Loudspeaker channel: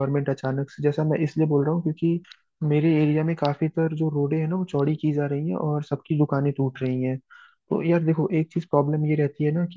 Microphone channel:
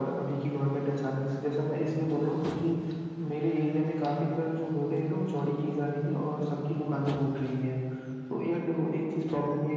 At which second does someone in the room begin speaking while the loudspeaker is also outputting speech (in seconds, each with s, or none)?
none